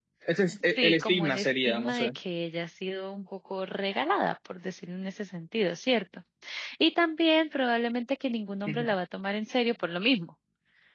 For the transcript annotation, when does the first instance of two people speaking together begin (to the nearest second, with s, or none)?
1 s